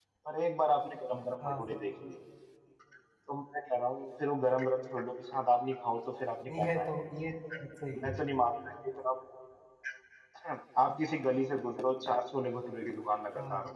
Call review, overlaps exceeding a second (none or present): none